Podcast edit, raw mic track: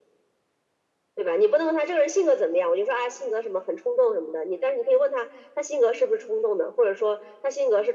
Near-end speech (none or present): none